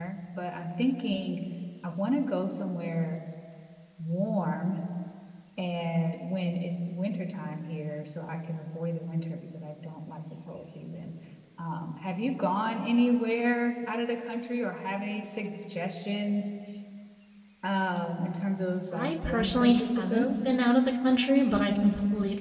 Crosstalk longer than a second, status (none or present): present